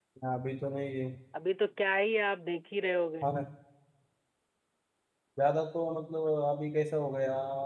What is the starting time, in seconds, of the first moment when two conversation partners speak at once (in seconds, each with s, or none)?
none